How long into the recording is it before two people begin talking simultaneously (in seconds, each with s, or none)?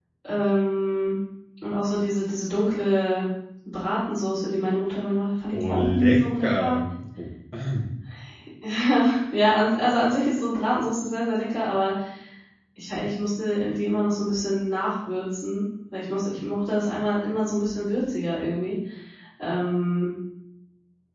5.5 s